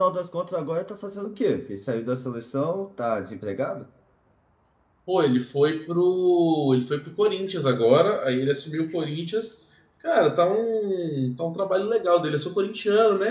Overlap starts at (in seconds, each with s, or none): none